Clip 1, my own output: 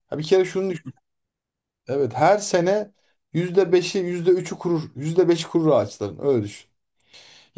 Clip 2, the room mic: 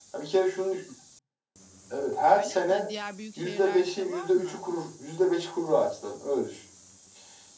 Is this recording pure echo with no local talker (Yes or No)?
No